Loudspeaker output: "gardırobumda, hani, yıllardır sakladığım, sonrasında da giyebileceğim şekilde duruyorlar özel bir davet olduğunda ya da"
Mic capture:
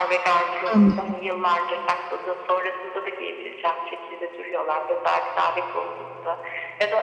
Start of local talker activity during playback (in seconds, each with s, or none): 0.7 s